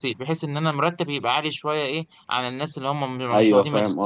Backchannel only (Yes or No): No